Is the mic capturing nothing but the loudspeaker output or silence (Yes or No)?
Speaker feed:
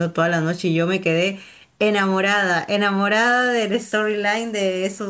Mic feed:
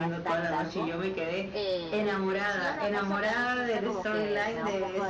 No